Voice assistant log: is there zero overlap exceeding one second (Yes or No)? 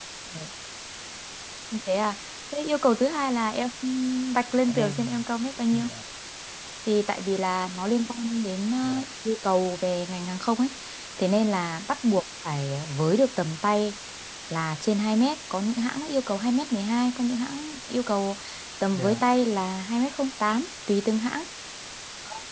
Yes